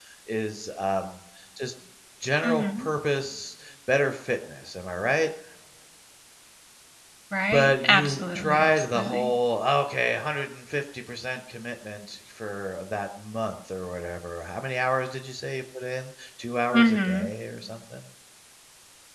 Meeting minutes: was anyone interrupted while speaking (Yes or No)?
Yes